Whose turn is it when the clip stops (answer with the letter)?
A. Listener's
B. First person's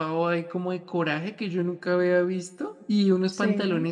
B